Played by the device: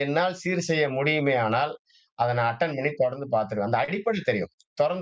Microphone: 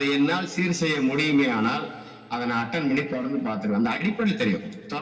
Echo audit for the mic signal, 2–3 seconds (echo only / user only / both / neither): echo only